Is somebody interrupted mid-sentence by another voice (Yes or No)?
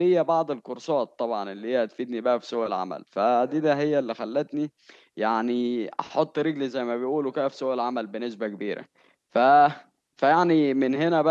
No